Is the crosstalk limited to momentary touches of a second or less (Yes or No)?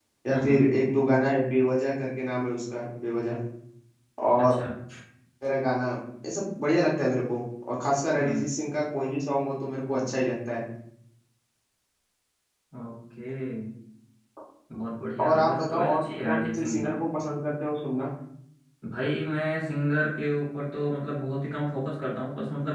No